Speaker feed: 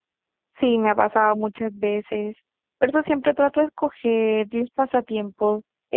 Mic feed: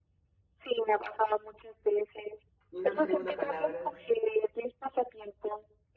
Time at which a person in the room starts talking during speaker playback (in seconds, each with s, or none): 2.7 s